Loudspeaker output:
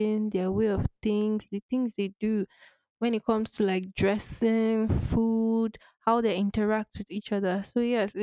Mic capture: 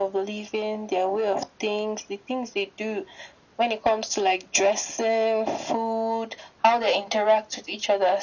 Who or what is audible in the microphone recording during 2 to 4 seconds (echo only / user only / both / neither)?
echo only